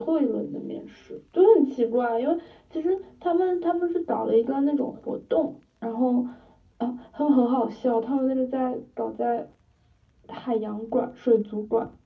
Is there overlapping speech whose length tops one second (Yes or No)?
No